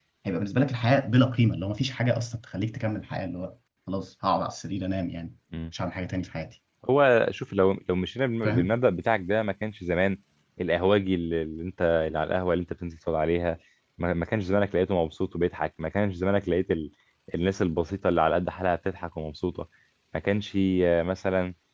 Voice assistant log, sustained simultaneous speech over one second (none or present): none